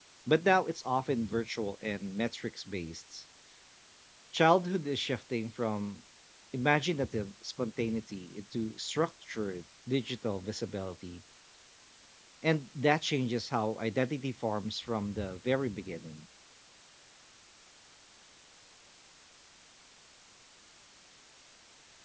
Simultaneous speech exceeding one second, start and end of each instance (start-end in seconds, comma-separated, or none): none